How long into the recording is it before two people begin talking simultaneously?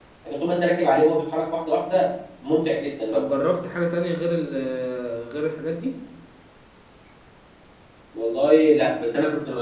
none

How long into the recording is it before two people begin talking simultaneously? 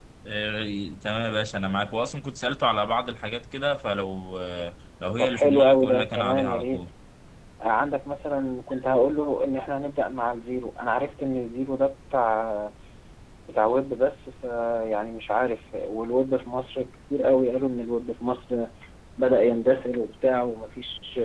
5.2 s

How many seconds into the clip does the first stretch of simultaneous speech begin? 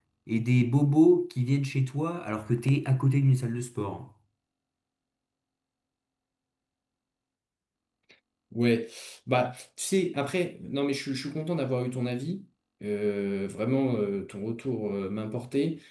none

